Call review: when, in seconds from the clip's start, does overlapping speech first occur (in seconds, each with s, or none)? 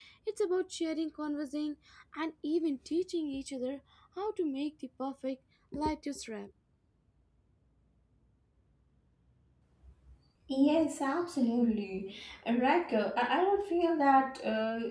none